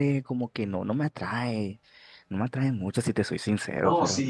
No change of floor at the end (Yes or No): No